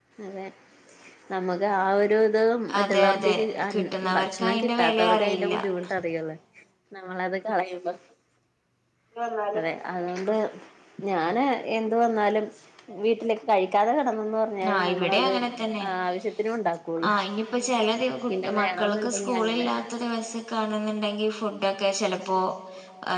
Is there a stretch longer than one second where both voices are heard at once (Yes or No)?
Yes